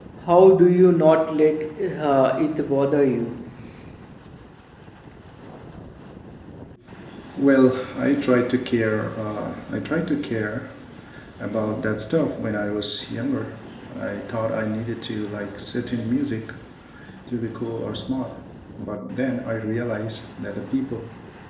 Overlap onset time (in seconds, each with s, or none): none